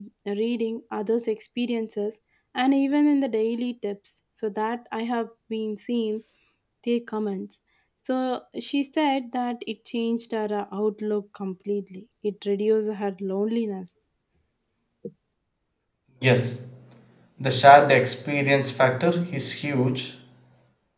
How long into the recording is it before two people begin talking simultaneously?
none

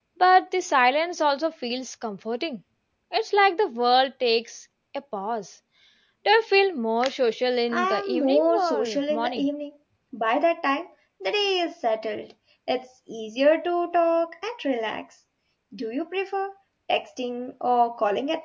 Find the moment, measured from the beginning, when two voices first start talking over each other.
8 s

